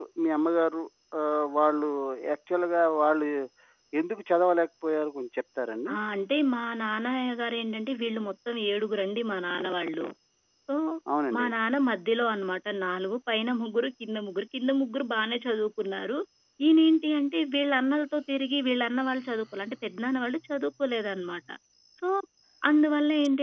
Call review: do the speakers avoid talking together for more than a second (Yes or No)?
Yes